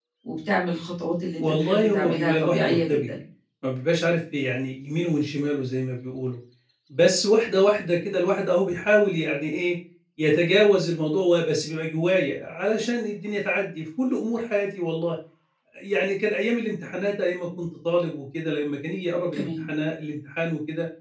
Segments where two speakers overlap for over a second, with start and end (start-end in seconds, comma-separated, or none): 1.4-3.1